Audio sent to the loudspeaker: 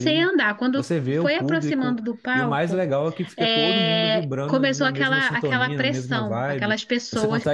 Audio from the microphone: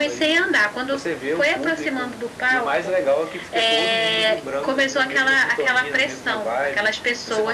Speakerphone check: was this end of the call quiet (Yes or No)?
Yes